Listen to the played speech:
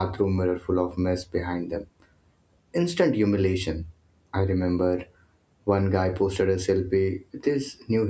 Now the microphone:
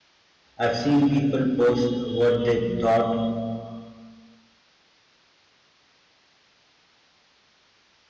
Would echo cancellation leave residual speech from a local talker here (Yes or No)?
Yes